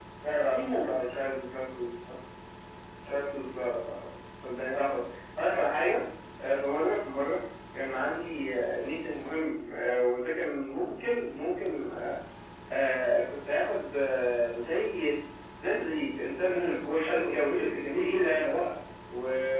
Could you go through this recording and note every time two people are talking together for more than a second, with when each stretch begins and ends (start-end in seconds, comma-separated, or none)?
16.5-18.5